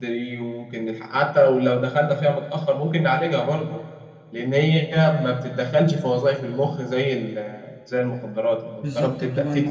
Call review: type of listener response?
taking over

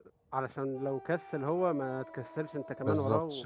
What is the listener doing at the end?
taking over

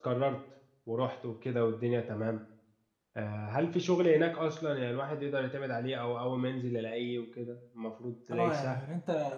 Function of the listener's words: taking over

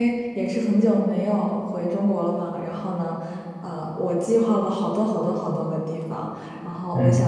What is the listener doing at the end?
listening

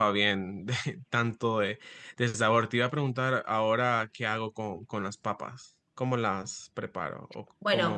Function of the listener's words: taking over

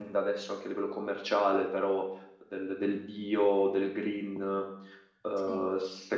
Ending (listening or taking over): listening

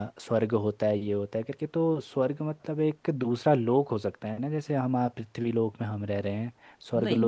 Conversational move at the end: listening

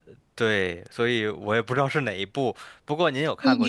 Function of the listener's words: taking over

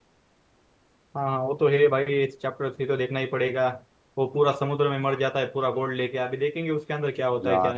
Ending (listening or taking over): taking over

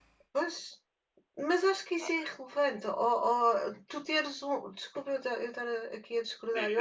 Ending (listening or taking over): listening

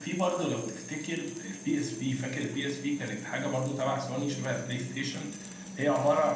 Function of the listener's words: listening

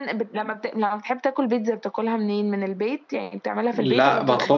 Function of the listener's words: taking over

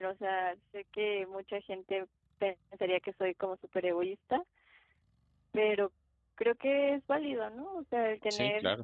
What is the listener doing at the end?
listening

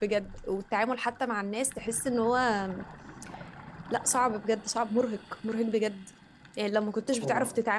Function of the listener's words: listening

